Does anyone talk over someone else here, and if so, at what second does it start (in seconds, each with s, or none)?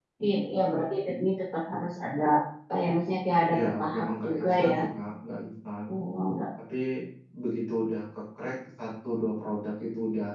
3.6 s